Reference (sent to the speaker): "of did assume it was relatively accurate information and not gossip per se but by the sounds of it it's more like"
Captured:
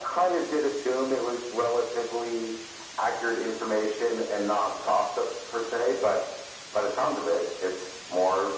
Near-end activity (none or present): none